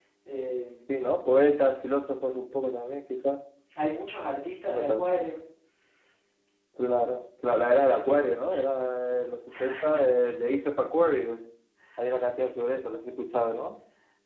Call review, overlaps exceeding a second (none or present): none